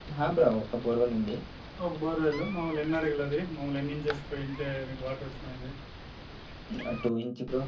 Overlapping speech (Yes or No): No